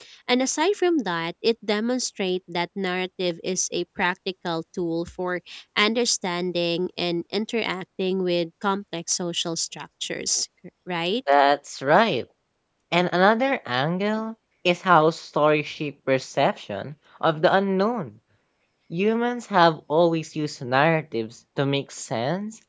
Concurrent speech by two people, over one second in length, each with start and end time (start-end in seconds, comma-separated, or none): none